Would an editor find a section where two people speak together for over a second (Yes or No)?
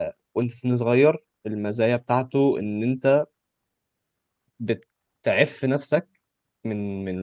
No